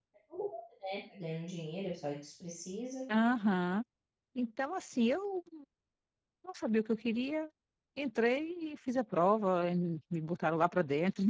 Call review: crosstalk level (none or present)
none